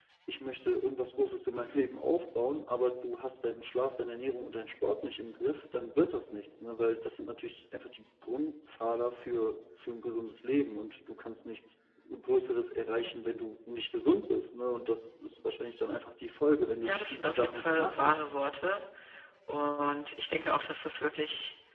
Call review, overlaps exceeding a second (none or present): present